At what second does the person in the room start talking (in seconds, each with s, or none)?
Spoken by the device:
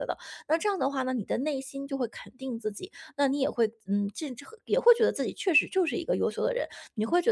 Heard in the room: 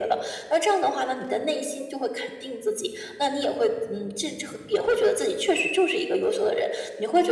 none